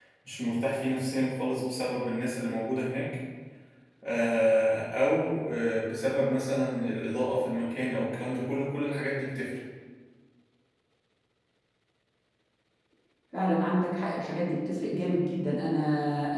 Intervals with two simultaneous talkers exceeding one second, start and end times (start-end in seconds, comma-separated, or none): none